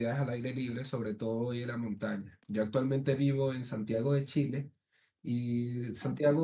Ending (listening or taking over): listening